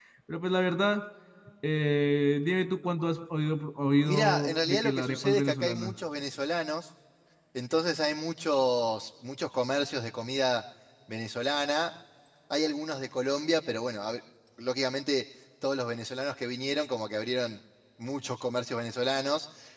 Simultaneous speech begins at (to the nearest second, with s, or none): 4 s